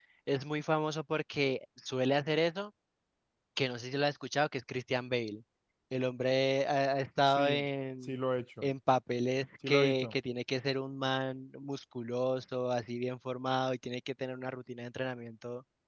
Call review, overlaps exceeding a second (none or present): none